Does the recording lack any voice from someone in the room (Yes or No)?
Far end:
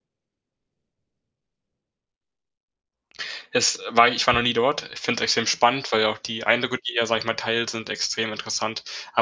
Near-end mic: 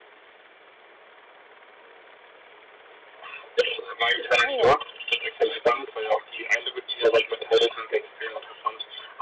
No